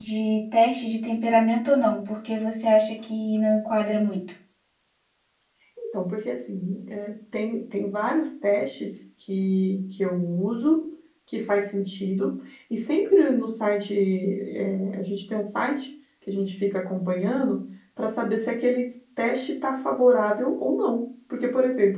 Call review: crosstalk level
none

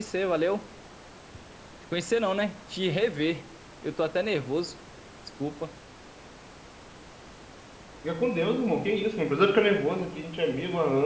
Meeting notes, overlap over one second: none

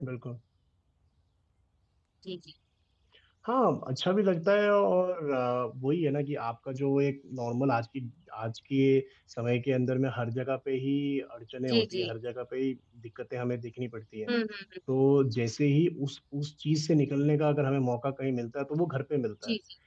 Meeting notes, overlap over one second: none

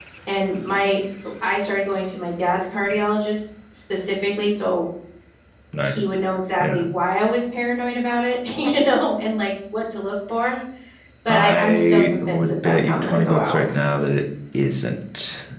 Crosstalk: present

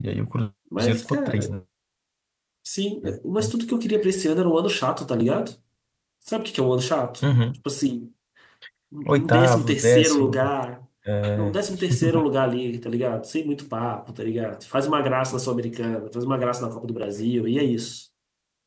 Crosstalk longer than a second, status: present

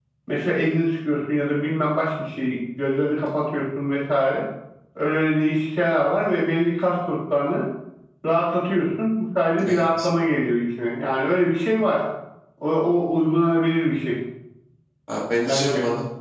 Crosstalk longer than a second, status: none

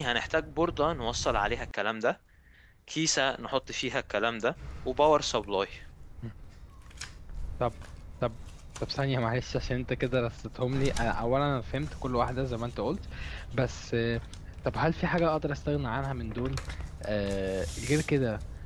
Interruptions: none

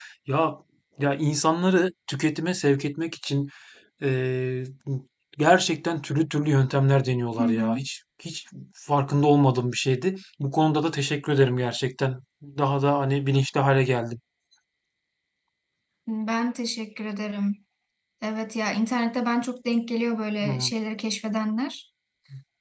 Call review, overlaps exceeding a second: none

